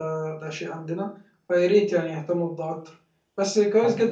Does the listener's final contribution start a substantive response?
No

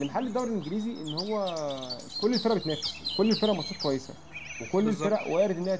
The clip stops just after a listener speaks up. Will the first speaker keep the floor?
Yes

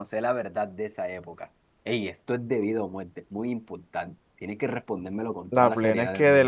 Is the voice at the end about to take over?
Yes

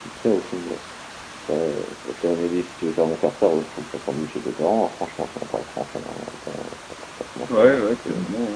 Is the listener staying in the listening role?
No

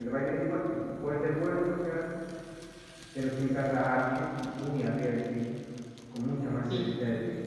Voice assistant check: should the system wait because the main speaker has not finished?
No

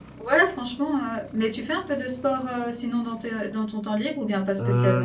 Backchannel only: No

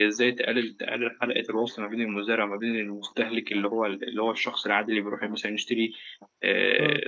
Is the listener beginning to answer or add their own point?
No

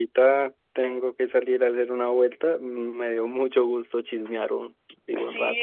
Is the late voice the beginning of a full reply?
Yes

